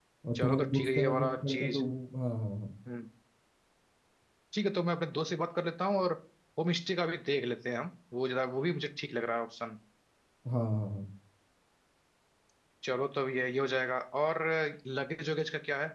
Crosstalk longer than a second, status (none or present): present